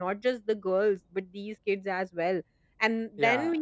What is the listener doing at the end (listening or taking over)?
listening